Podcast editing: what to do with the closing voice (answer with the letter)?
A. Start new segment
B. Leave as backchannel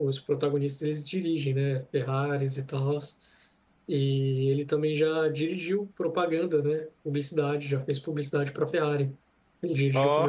B